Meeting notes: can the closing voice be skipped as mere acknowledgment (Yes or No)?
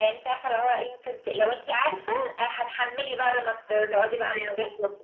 No